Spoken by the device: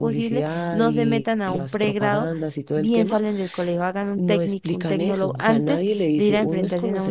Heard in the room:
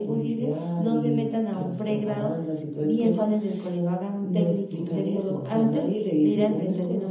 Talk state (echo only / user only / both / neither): echo only